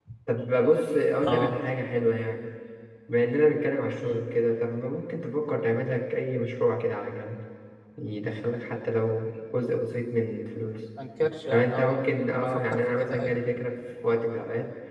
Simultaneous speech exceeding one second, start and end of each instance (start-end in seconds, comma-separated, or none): 11.5-13.4